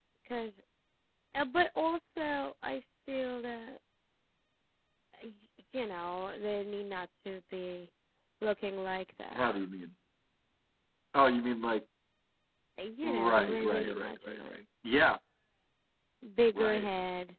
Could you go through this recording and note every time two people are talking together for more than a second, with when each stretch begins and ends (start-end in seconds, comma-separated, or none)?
13.0-14.6